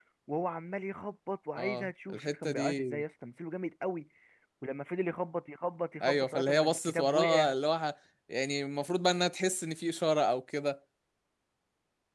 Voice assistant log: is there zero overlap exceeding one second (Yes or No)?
No